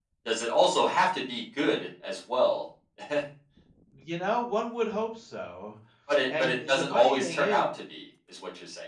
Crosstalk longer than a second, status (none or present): present